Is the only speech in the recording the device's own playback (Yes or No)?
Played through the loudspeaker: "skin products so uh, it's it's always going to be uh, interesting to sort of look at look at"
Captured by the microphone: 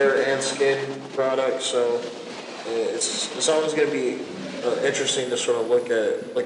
Yes